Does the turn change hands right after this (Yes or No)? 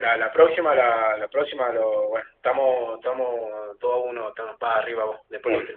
Yes